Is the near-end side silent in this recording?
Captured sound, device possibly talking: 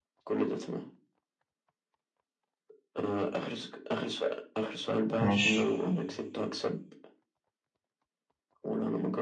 No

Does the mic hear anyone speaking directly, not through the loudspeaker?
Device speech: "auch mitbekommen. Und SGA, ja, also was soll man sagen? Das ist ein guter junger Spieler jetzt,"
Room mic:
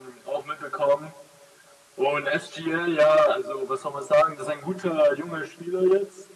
No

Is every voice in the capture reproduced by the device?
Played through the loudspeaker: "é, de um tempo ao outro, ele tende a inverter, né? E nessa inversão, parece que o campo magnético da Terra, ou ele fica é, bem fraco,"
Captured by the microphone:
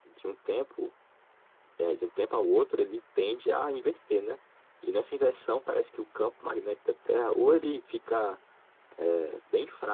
Yes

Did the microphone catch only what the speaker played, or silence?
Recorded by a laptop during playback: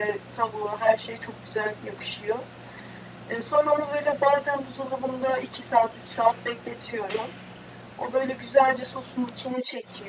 Yes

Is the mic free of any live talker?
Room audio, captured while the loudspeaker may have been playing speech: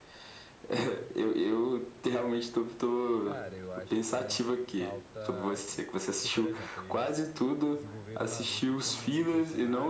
No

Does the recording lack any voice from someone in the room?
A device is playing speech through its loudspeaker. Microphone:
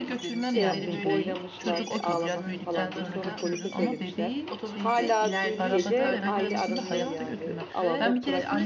No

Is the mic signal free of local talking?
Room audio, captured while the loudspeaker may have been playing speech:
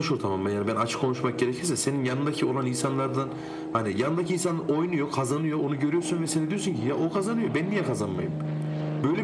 Yes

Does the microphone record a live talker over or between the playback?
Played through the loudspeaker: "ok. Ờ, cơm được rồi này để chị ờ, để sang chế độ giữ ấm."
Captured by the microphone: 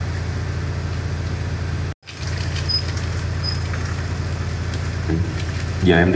Yes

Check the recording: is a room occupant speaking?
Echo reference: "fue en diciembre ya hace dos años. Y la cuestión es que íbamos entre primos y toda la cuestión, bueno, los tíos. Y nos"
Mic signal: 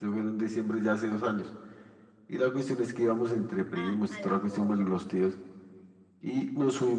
Yes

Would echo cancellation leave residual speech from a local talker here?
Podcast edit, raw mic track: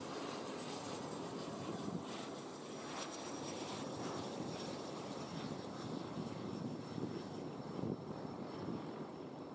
No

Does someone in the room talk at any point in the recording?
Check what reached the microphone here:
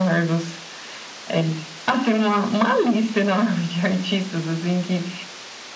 No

